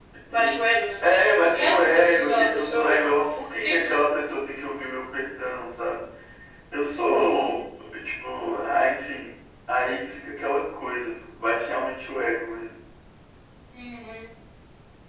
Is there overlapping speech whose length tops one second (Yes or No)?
Yes